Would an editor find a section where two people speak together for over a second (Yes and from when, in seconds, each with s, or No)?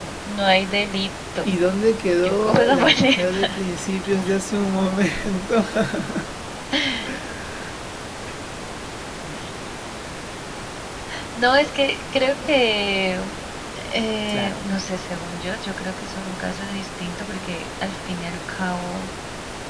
Yes, from 2.2 s